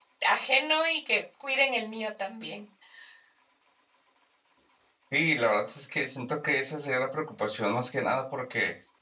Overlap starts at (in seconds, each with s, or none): none